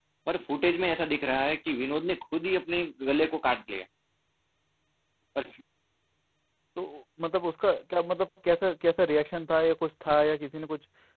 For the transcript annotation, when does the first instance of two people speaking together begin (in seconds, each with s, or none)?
none